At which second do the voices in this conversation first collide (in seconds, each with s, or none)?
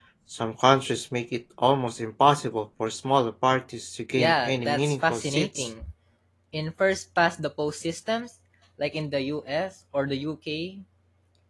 4.2 s